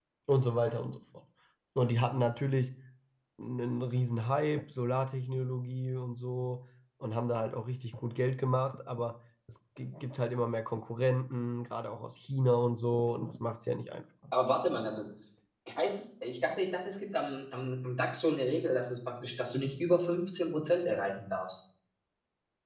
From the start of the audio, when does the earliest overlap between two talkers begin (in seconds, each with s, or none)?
none